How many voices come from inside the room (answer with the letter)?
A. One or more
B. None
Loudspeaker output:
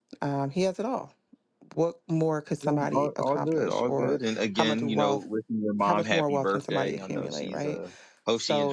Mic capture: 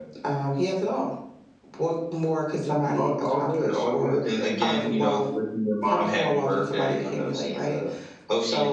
B